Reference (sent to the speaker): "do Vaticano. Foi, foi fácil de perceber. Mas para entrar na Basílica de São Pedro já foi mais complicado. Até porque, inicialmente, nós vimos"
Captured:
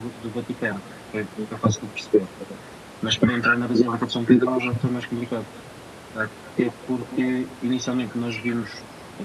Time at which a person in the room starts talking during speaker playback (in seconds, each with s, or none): none